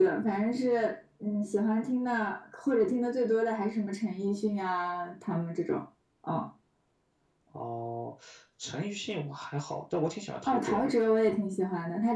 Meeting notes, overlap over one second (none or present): none